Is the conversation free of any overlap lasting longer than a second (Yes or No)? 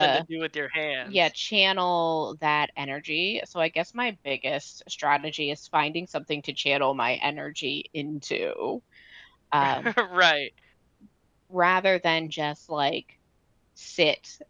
Yes